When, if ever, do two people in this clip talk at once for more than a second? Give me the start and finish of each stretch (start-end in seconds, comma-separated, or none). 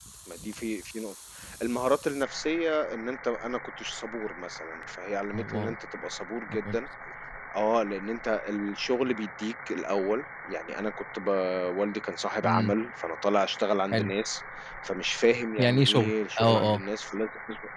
15.6-16.8